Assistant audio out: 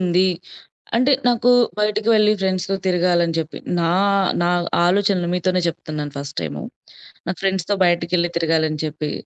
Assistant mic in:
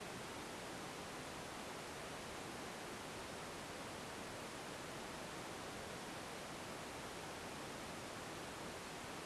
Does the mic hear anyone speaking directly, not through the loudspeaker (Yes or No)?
No